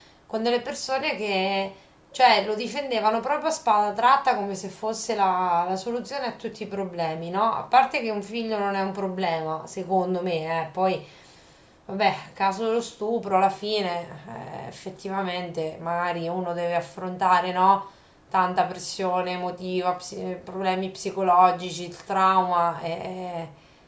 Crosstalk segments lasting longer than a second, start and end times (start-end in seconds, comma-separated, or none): none